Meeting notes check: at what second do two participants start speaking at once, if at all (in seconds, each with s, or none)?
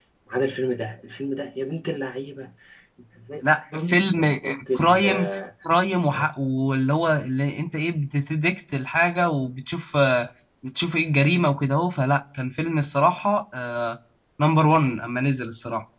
3.4 s